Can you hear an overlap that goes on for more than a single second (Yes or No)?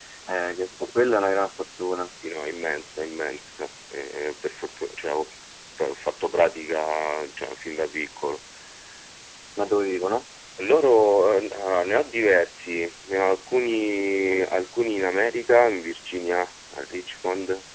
No